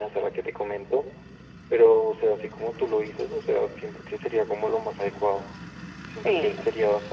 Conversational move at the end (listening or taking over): listening